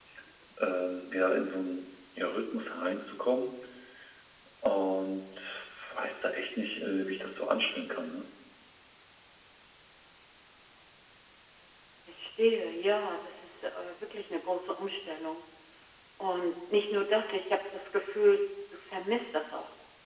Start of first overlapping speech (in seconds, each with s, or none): none